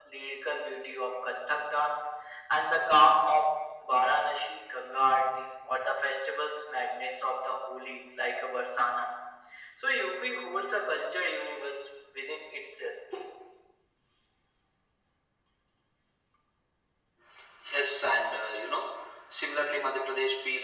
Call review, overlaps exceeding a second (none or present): none